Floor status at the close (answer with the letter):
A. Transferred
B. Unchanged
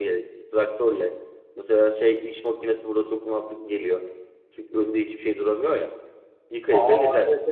A